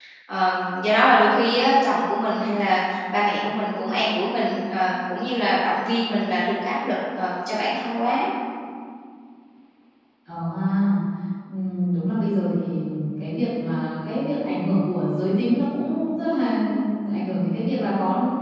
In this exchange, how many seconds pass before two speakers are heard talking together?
none

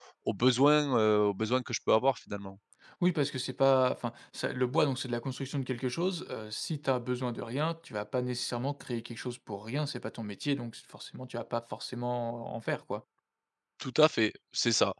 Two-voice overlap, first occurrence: none

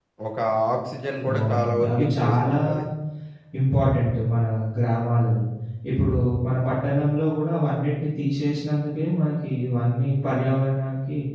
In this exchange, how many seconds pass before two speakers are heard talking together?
1.3 s

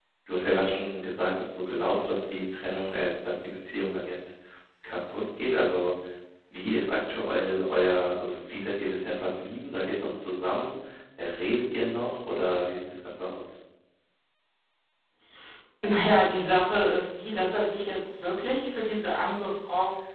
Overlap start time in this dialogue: none

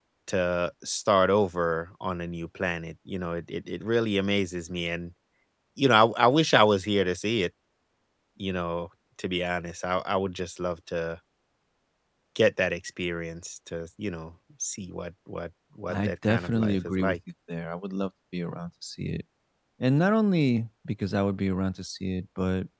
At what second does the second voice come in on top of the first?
15.9 s

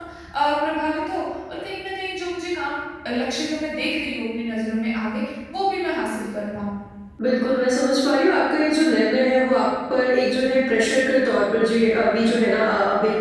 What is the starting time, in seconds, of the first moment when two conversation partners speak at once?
none

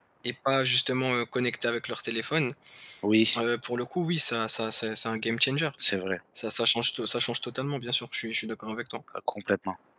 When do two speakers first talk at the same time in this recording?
none

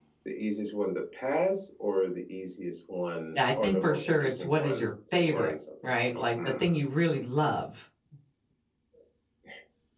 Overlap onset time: 3.4 s

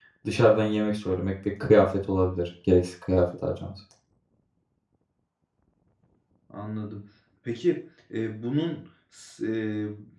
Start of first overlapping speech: none

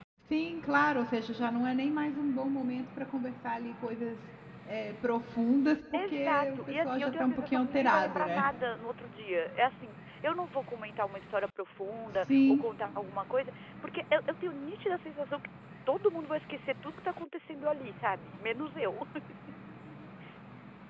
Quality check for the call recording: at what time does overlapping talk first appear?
5.9 s

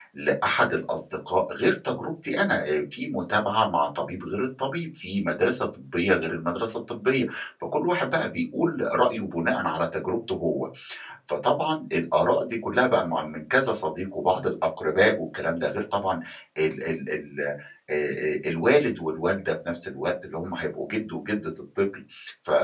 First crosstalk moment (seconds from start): none

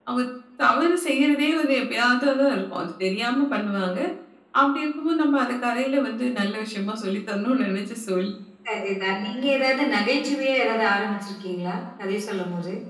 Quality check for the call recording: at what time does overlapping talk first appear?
none

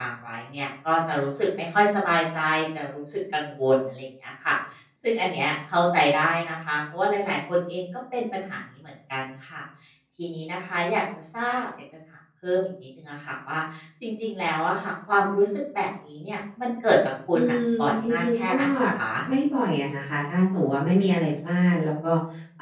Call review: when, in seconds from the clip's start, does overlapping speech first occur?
17.3 s

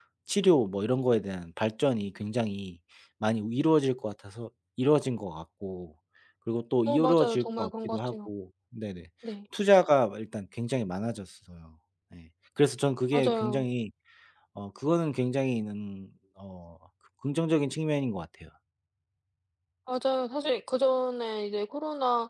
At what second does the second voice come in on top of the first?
6.9 s

